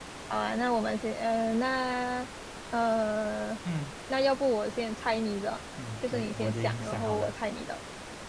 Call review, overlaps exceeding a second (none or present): present